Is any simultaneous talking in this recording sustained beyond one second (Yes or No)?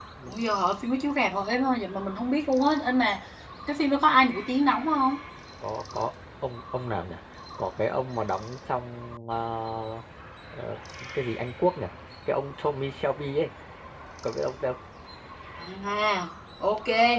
No